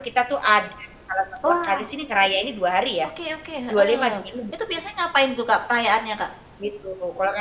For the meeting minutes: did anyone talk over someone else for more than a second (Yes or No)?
No